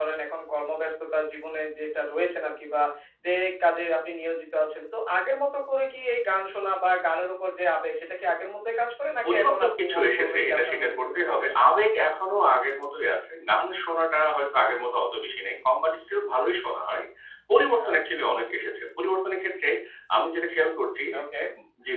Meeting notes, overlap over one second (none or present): present